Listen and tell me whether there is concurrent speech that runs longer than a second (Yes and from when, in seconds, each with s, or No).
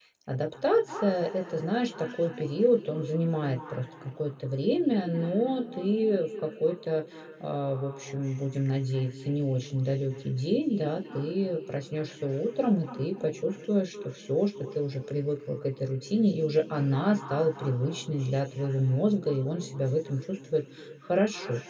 No